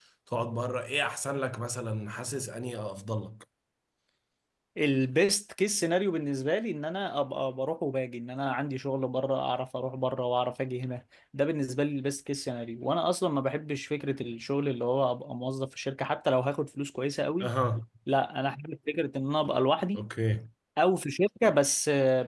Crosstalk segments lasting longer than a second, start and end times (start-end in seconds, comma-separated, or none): none